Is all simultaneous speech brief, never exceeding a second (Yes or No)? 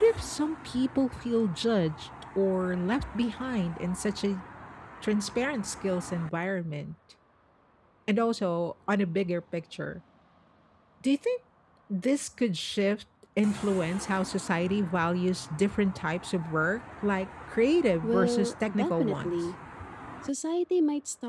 No